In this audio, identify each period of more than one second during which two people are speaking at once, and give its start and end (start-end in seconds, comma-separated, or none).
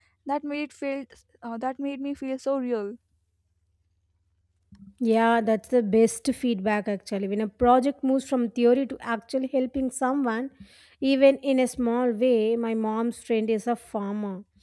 none